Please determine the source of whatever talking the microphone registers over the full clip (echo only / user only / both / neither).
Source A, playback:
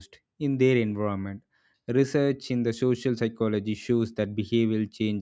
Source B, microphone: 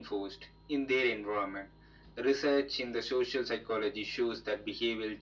echo only